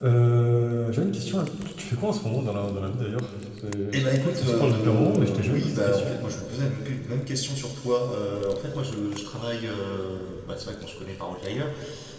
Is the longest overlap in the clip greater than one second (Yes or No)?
Yes